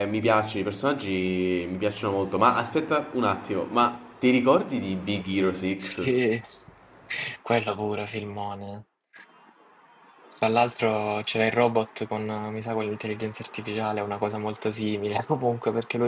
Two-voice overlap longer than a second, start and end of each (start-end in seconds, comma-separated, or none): none